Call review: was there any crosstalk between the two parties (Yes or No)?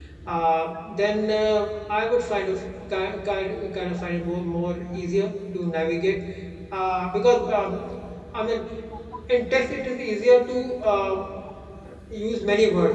No